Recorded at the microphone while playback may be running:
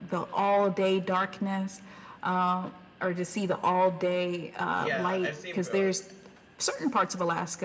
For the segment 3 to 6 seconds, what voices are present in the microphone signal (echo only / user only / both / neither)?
both